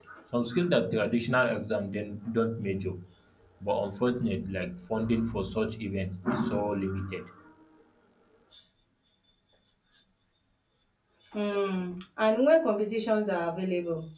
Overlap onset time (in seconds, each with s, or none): none